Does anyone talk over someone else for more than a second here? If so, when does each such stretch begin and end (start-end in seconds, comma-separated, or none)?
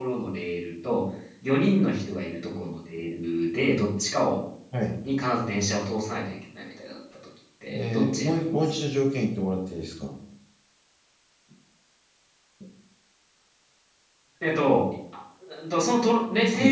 7.7-8.9